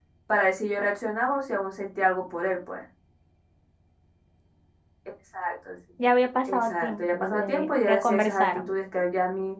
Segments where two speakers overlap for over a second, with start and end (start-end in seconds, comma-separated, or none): 6.5-8.7